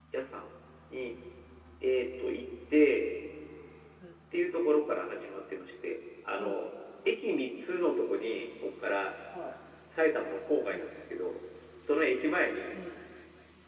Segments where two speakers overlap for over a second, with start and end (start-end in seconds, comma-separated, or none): none